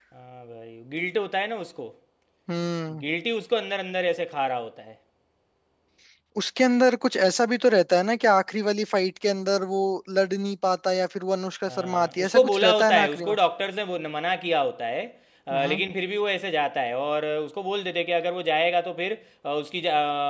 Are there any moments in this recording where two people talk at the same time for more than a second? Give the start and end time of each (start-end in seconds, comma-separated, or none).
11.8-13.4